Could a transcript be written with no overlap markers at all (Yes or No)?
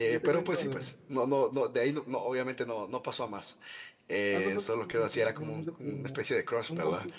No